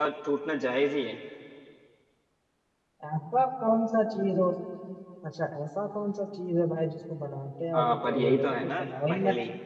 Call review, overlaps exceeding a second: present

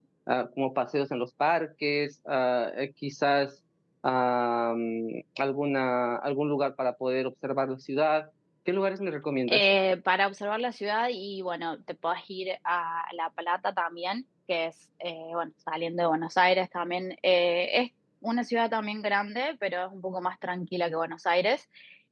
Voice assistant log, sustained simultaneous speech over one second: none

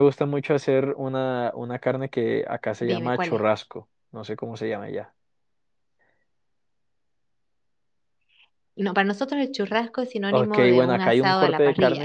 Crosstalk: present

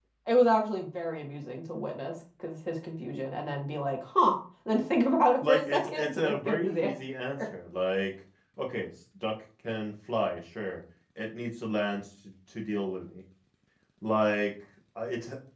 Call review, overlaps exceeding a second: present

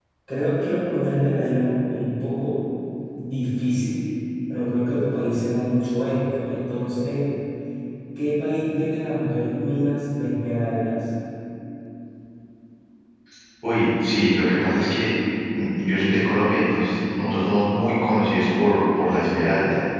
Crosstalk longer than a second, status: none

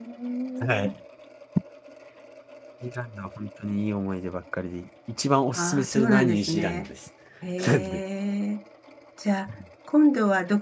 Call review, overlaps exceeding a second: present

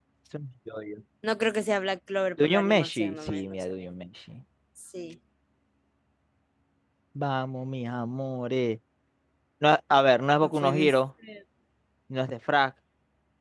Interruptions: present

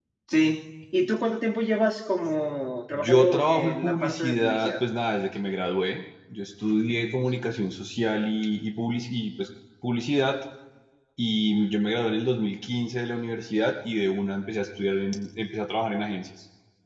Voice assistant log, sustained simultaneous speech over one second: present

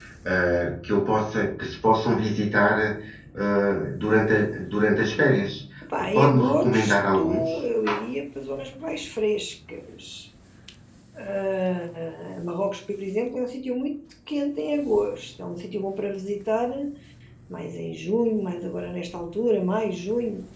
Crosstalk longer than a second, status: present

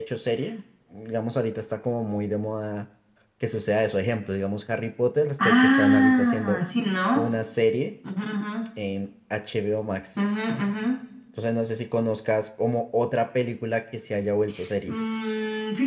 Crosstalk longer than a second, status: present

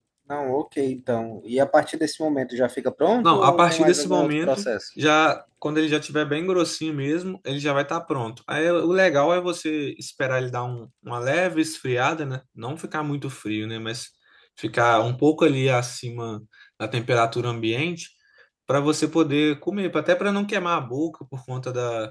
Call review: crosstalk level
present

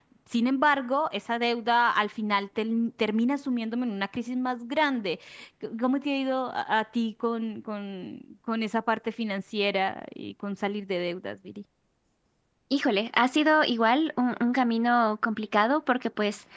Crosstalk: none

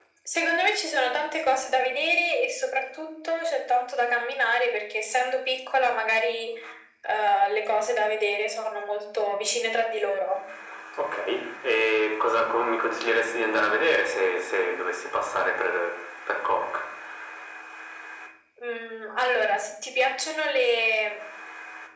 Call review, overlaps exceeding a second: none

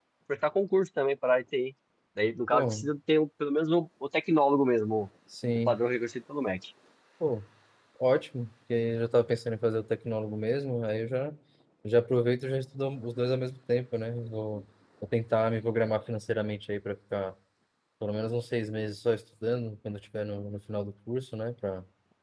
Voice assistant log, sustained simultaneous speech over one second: none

